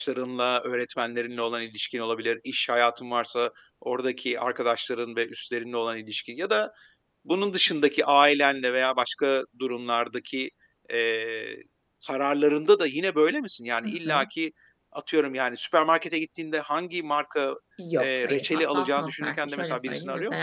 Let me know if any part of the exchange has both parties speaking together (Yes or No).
Yes